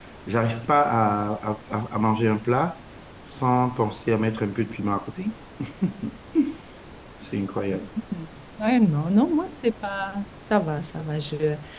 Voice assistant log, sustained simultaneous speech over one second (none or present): none